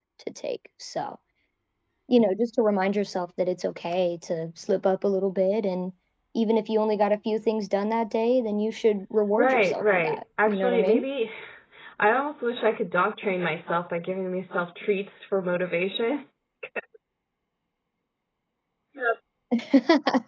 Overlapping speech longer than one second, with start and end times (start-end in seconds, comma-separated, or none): 9.4-11.0